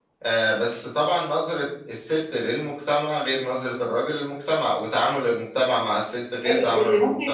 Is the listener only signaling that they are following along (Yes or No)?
No